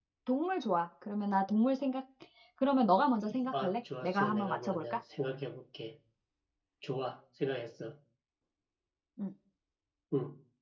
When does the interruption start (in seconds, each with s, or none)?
3.5 s